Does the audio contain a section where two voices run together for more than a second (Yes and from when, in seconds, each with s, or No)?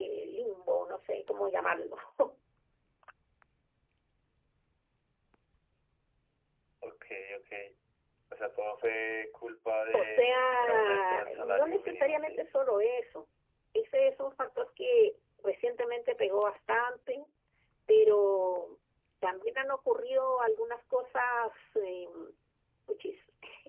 Yes, from 9.9 s